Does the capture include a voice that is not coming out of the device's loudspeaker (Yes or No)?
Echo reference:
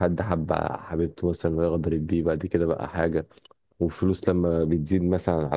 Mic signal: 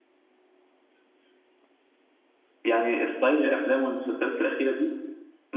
Yes